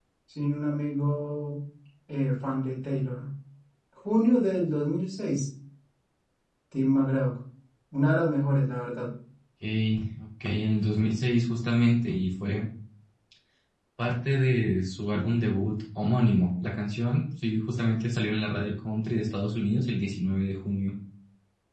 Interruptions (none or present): none